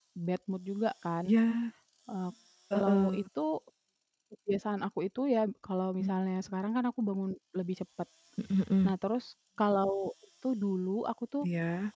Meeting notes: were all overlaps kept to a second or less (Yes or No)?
Yes